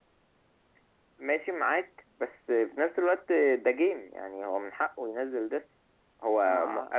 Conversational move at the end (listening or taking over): listening